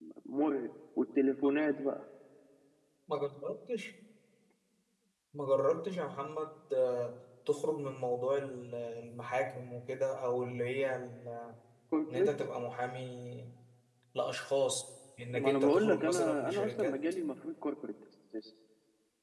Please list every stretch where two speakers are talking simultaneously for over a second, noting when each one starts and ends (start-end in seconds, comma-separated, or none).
15.3-17.0